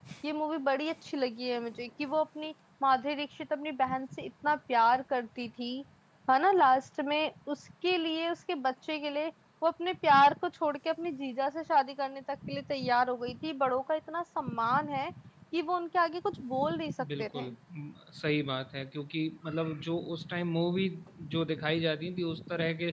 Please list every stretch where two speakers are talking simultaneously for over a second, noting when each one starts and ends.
none

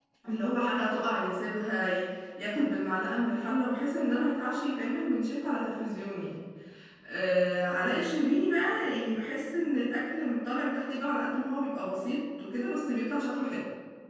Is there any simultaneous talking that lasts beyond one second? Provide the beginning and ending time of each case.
none

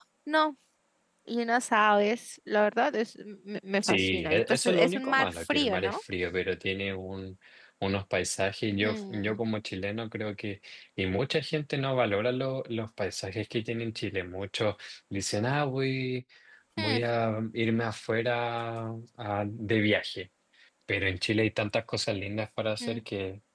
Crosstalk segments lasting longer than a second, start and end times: 3.8-6.0

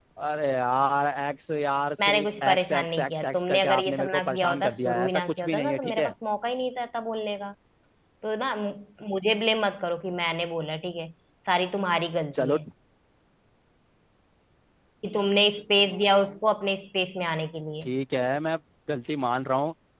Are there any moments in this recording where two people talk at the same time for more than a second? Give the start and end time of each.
2.1-6.1

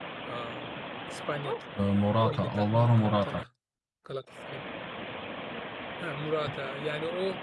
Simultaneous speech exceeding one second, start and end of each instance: 2.2-3.4

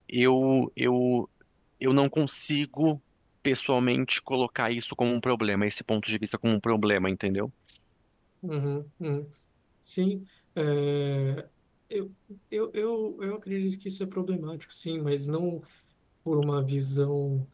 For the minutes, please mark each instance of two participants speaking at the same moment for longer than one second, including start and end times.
none

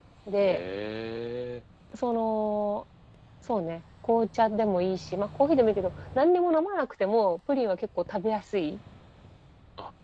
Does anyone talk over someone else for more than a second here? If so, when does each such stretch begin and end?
none

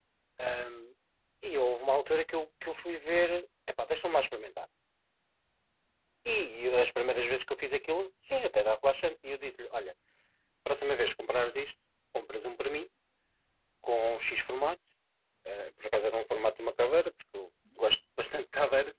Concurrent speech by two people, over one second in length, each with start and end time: none

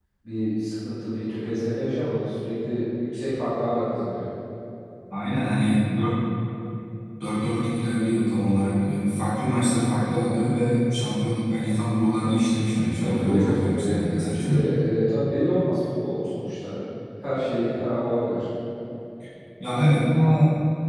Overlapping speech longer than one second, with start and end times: 13.0-14.6

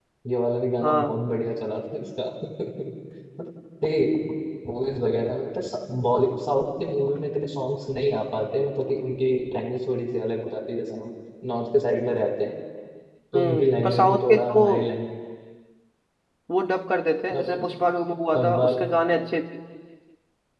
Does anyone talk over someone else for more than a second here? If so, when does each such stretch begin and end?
13.3-14.7

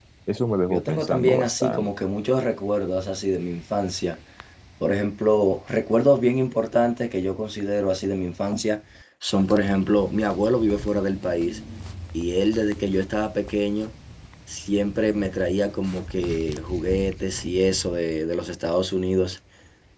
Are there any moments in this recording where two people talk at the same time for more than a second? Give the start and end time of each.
0.7-1.9

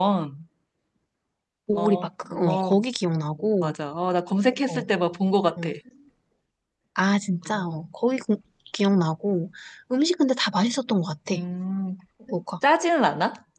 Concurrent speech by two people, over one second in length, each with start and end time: none

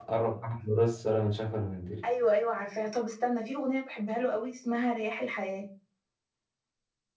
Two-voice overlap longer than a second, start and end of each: none

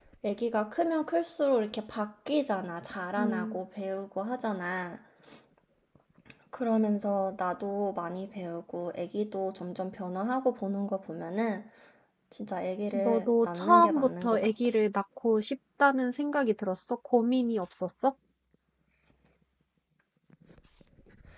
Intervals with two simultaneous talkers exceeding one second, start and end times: 12.9-14.5

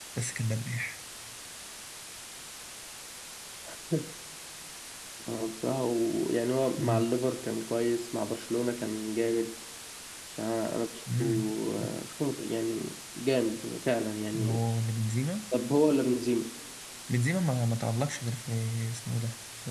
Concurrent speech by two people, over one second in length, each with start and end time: none

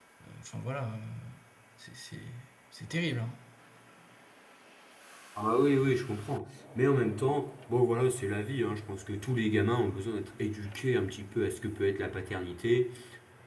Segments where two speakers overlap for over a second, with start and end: none

